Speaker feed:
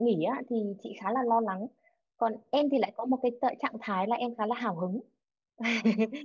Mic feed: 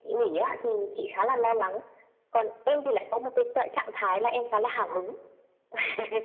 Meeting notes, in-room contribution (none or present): none